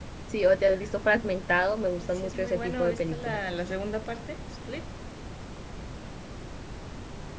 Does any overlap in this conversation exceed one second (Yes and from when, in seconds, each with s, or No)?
Yes, from 2.0 s